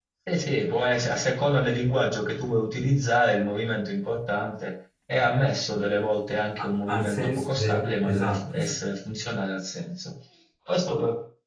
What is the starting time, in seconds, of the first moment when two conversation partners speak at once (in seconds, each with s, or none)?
6.6 s